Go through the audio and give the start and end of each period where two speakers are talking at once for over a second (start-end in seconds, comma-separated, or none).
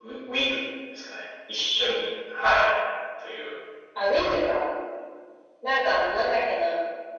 none